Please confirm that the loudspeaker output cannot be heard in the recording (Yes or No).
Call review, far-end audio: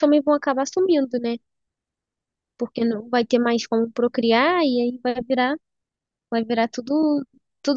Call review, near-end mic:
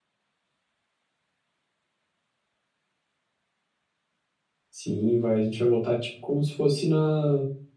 Yes